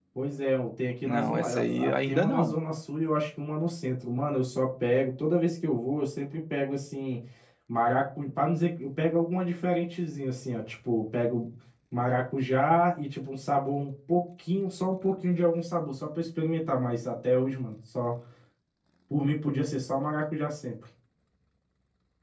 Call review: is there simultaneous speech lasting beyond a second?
Yes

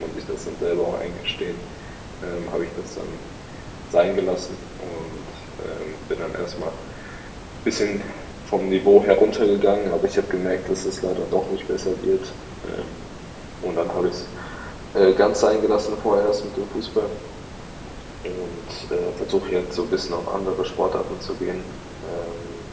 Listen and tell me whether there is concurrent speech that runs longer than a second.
No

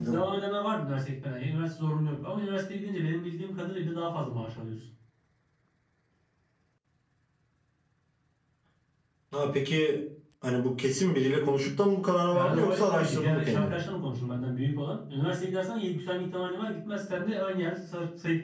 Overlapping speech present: Yes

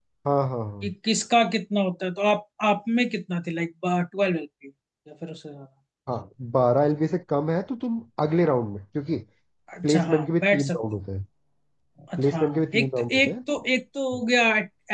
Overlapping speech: Yes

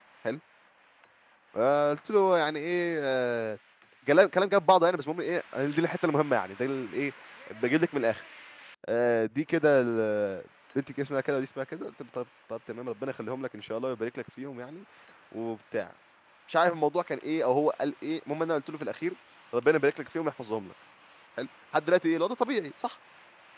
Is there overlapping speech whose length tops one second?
No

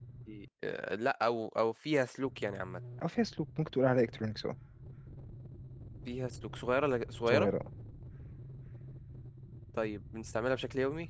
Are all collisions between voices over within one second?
Yes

